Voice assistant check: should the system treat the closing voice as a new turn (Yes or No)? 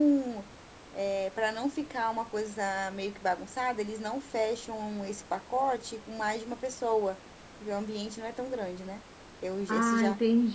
Yes